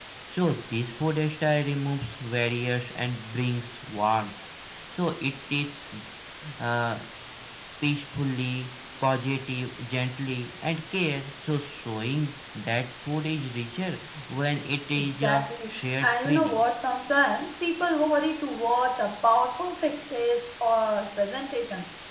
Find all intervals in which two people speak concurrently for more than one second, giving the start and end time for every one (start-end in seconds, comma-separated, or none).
15.0-16.6